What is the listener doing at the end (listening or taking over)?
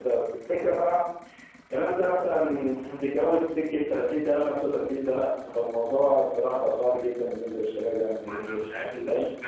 taking over